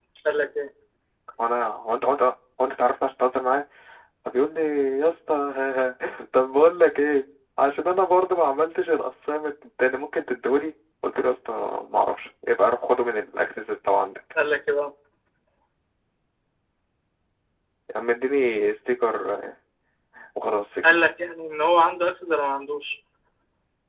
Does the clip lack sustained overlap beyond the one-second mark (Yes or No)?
Yes